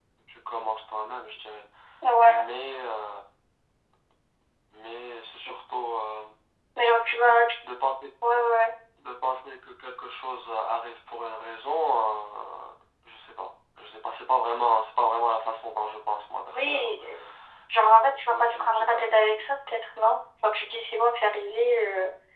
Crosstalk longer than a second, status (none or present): present